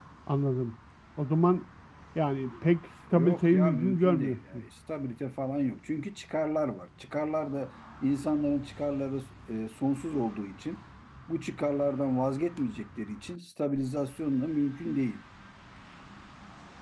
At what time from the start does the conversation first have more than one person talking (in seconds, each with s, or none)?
3.1 s